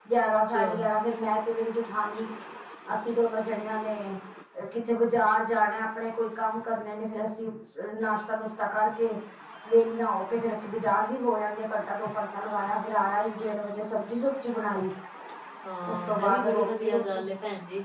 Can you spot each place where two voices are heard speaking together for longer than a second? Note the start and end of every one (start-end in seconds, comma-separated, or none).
15.9-17.2